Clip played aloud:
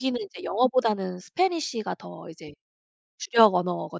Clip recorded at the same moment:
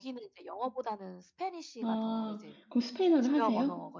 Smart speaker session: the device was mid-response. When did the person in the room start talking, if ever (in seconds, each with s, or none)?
1.8 s